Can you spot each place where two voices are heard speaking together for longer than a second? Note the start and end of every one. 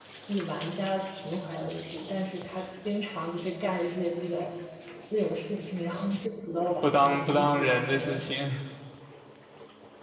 6.8-8.2

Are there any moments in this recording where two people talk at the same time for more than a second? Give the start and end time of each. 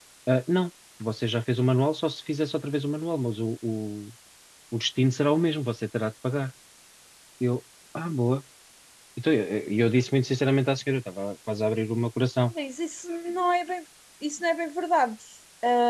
none

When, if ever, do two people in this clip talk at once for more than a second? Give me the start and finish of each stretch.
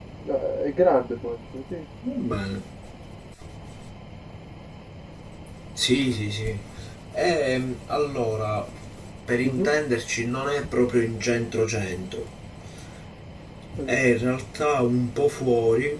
none

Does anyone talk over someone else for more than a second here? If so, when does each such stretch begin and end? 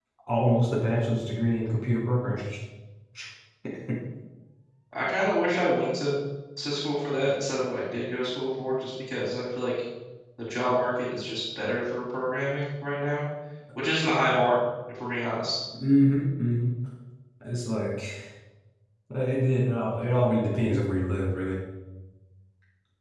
none

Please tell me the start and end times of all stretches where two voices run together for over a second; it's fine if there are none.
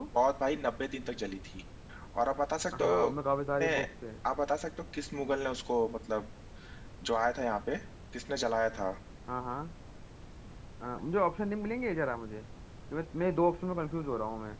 none

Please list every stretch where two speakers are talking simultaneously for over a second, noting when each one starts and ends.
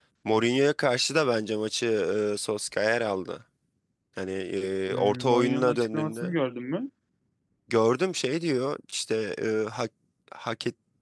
4.9-6.3

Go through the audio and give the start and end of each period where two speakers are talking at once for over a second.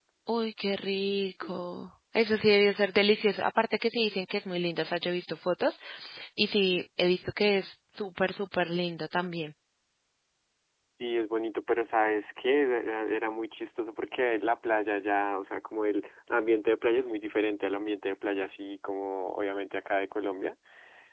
none

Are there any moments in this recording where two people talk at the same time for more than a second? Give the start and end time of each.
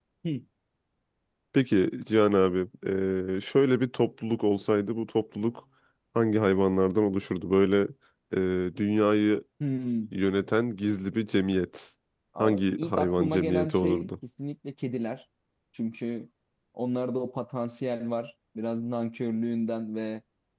12.4-14.1

